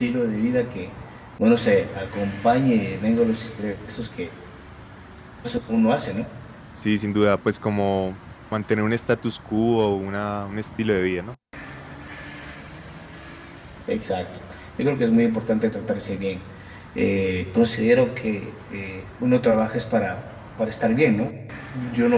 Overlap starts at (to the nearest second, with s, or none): none